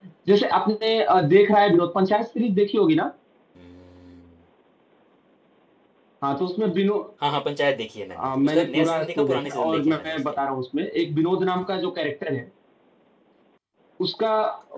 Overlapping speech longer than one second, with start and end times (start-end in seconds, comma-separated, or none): 8.1-10.2